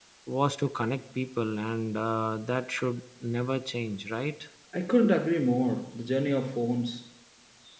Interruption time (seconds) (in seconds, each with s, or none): none